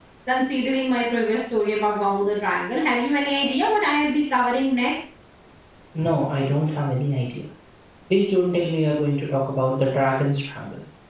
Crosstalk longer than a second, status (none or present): none